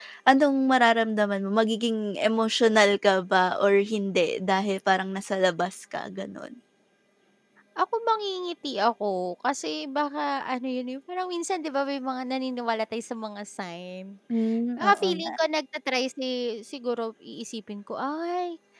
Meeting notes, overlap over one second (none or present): none